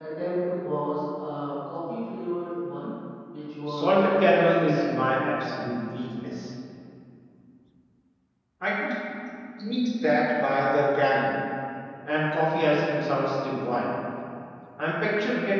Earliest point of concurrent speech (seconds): 4 s

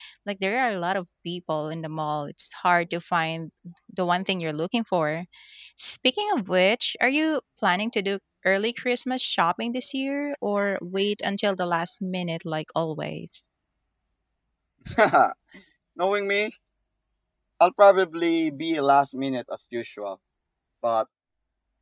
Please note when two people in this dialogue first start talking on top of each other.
none

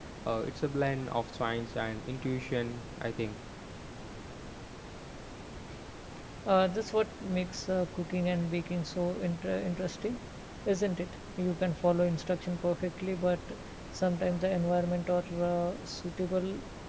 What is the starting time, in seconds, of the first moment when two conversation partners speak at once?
none

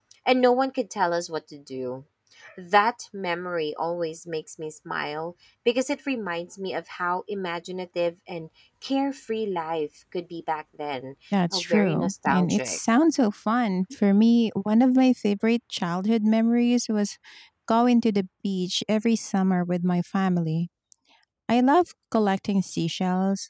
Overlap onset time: 11 s

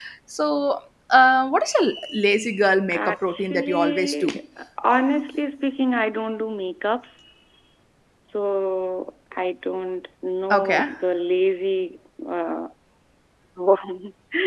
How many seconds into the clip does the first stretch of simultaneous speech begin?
3 s

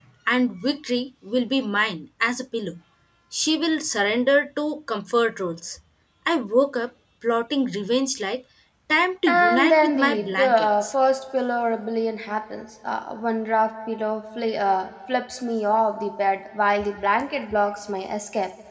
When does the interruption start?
9 s

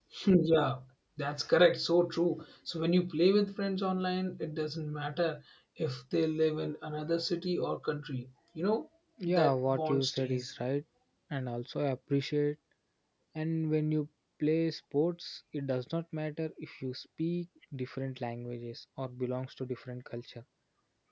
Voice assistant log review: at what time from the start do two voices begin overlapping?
9 s

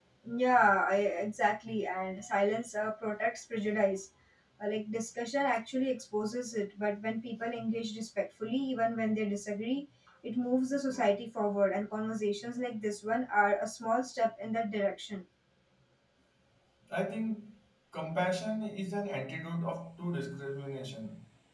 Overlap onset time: none

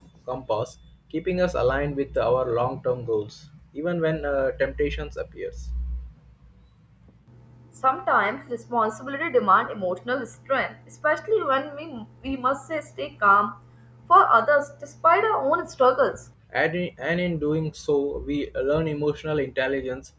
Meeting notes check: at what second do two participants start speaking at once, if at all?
none

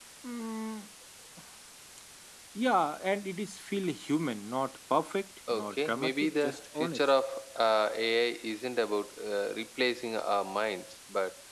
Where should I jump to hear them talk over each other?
5 s

